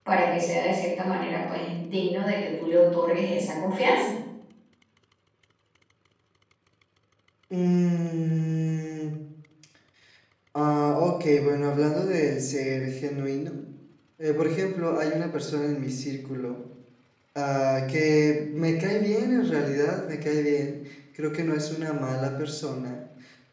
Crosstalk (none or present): none